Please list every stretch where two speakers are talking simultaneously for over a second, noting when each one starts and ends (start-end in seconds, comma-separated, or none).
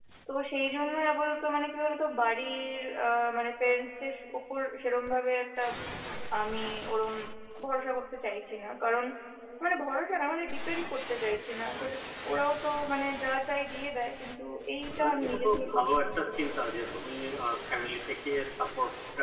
14.9-16.6